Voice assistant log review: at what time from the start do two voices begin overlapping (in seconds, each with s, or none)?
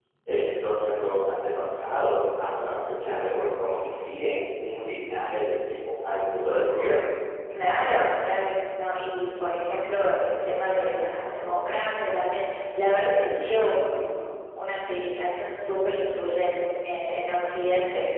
none